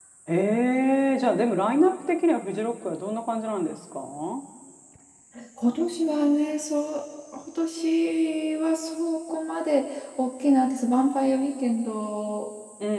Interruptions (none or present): none